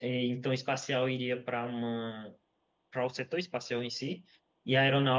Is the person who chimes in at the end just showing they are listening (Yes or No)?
Yes